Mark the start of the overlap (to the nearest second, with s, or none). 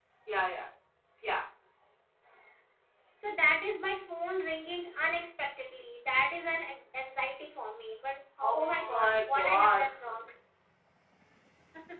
8 s